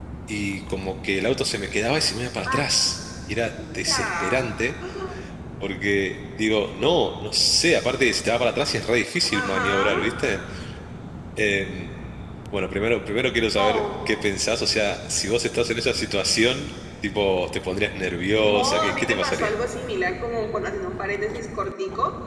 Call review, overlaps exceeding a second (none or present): present